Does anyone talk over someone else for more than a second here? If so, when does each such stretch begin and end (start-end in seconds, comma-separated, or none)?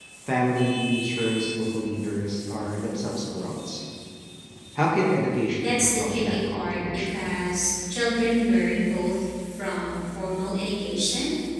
5.6-7.3